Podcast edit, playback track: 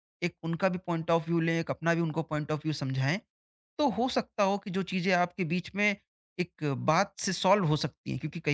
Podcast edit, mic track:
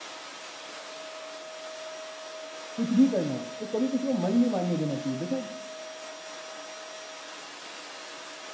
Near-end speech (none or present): present